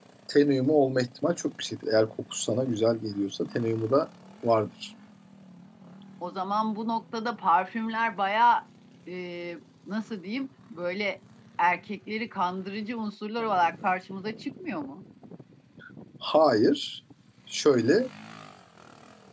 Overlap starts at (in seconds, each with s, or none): none